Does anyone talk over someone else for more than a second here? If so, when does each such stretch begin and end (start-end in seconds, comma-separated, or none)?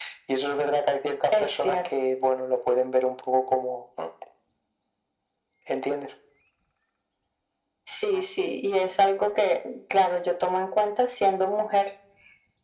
none